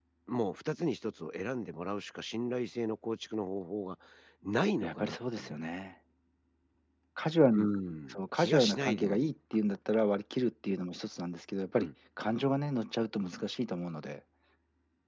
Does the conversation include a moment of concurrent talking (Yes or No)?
Yes